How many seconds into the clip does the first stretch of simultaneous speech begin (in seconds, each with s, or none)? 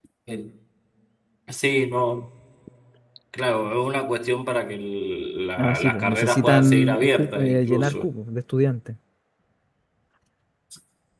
5.6 s